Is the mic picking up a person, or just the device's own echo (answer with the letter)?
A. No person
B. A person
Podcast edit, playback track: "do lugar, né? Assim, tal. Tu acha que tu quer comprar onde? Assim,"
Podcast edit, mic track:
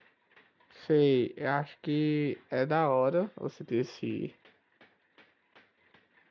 B